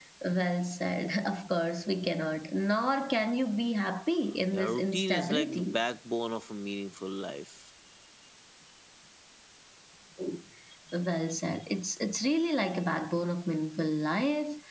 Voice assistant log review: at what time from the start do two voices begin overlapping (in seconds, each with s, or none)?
4.5 s